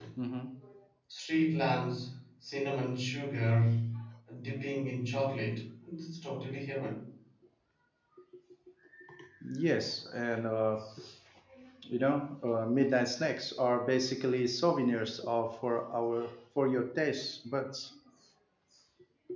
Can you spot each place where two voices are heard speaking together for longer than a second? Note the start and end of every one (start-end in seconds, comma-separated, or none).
none